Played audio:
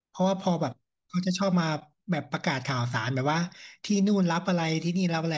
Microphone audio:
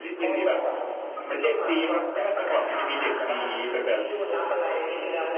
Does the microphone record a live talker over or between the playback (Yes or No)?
Yes